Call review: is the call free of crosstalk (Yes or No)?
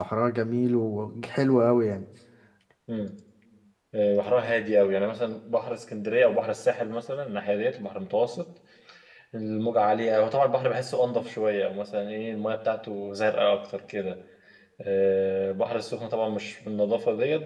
Yes